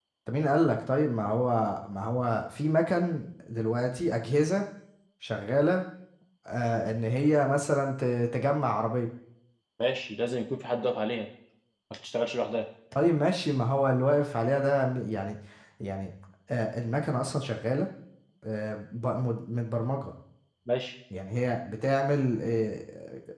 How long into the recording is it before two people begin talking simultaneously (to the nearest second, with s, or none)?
none